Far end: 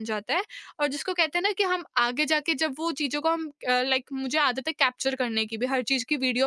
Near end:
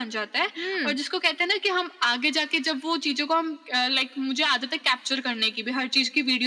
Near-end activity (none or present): present